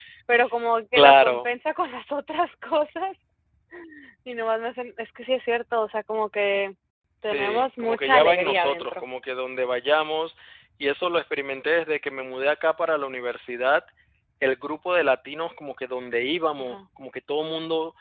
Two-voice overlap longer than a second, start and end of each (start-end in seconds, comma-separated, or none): 7.2-9.0